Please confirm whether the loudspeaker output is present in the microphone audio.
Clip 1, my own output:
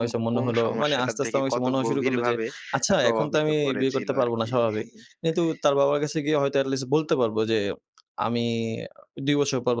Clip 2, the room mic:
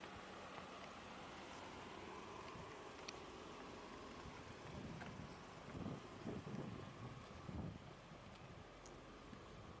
No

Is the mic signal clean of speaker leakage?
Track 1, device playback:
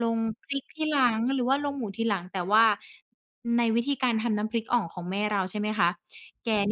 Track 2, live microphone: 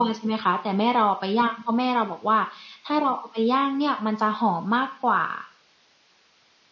Yes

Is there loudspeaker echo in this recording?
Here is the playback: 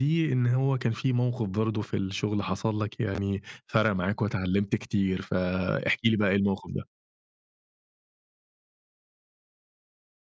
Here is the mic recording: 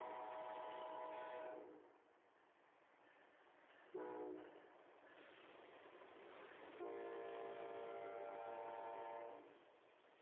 No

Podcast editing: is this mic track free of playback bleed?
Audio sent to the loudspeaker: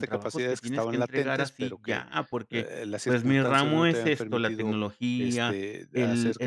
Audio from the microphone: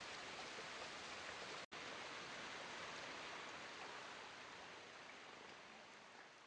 Yes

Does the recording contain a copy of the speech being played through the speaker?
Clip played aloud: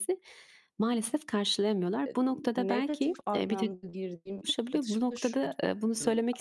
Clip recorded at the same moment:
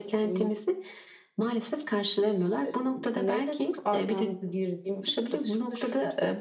Yes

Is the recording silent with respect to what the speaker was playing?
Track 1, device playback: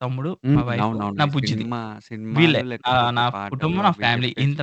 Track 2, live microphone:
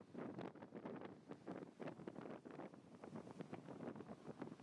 Yes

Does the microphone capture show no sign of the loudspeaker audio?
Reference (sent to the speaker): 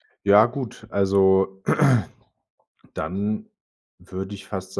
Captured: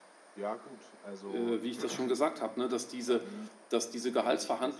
No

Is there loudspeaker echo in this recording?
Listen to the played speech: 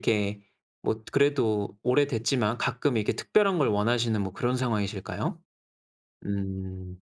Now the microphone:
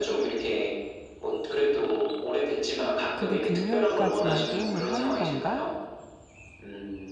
Yes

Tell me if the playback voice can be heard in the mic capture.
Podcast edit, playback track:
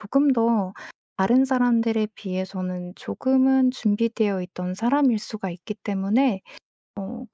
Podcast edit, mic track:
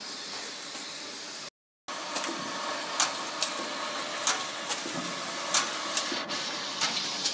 No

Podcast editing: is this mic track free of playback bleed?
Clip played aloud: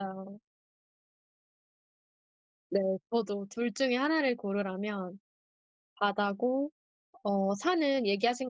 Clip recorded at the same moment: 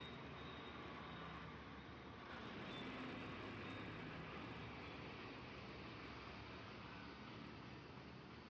Yes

